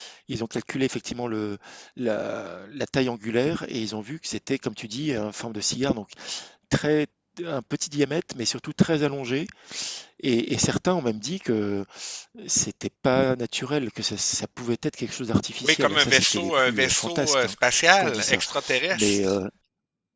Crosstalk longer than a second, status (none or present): present